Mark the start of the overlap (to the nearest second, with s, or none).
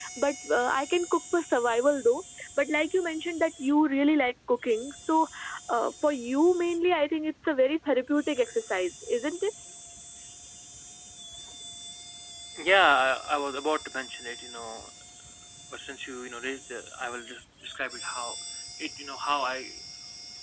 none